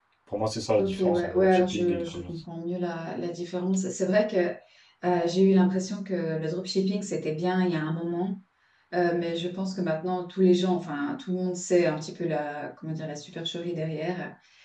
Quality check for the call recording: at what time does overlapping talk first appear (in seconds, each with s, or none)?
0.8 s